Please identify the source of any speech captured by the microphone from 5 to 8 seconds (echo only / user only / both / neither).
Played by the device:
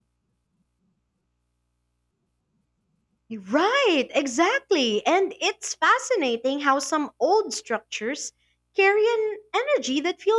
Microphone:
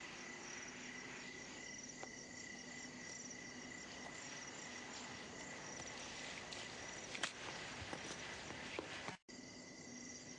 neither